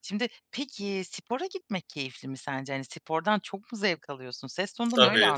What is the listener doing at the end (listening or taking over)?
taking over